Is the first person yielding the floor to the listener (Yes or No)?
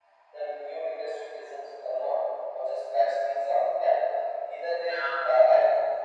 No